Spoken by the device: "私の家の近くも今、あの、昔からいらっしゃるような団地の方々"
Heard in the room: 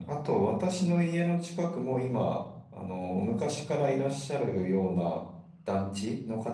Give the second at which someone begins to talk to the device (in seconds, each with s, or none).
none